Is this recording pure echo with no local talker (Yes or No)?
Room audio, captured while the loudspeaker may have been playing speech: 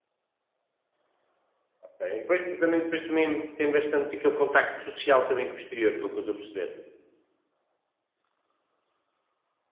No